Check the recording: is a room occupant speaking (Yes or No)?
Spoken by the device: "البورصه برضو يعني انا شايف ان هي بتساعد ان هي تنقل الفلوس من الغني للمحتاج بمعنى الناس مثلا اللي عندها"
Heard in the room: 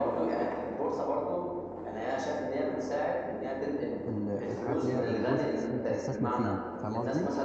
Yes